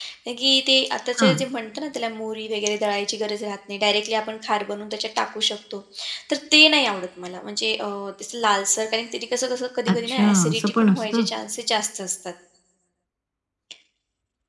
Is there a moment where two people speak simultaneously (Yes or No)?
Yes